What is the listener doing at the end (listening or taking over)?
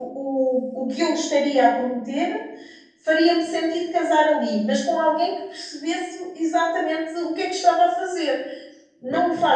listening